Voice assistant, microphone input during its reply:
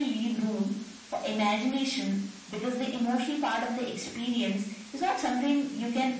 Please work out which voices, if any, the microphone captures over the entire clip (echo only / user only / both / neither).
echo only